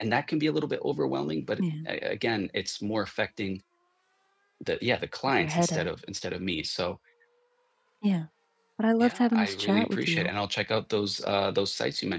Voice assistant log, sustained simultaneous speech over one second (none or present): present